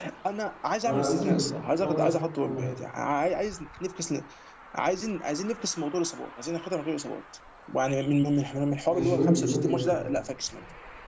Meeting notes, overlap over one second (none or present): present